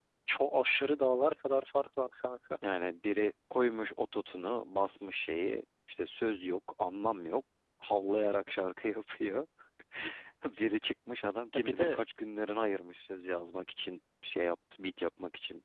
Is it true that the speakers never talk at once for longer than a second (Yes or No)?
Yes